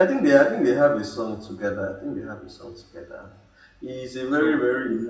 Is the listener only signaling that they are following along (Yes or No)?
Yes